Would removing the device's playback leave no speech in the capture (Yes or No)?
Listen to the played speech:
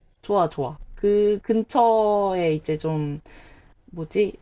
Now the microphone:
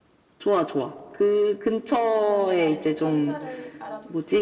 No